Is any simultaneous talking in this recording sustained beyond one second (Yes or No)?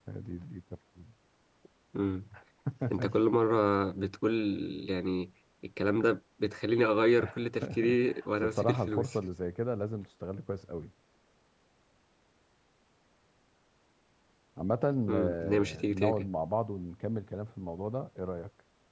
Yes